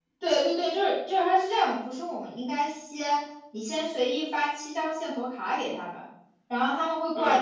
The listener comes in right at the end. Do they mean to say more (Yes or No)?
No